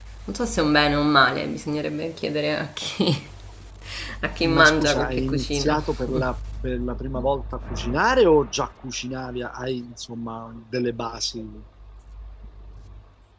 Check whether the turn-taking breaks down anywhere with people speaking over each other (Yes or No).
Yes